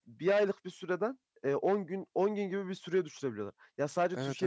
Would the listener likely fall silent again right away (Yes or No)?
Yes